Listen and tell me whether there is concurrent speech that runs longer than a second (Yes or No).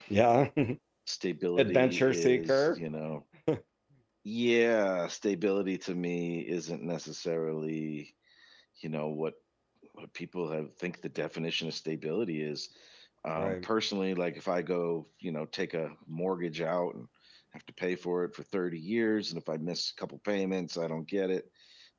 Yes